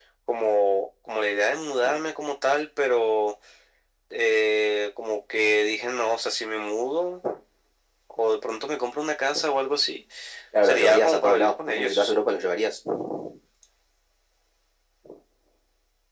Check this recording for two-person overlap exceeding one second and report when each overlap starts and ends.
10.6-12.1

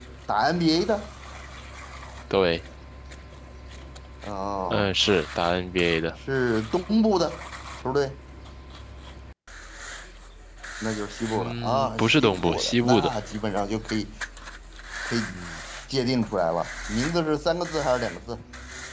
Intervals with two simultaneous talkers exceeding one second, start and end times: 11.3-13.1

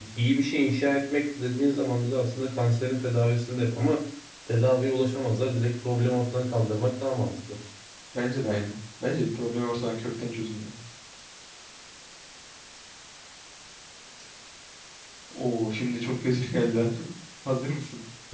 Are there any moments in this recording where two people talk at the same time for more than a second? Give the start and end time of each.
none

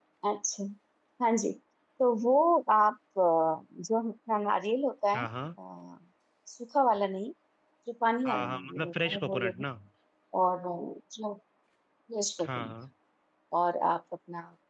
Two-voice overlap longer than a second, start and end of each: 8.3-9.6

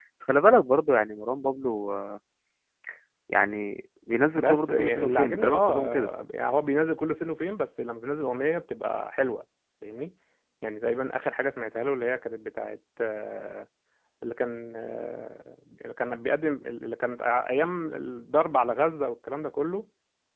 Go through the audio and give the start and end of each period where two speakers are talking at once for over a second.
4.3-5.9

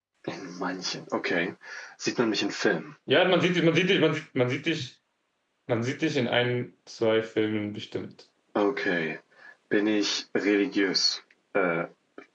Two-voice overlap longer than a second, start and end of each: none

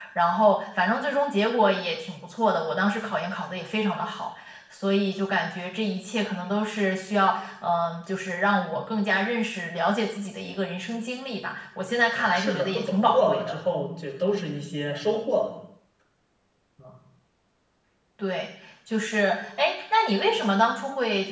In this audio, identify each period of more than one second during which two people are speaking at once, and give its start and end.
12.2-13.6

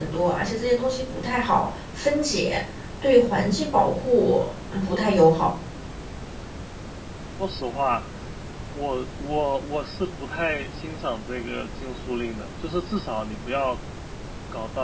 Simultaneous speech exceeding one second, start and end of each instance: none

